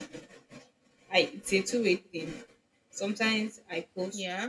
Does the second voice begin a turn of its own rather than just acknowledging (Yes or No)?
No